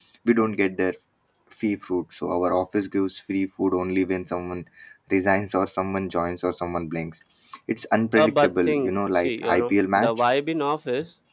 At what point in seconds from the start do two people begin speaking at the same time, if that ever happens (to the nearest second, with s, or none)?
8 s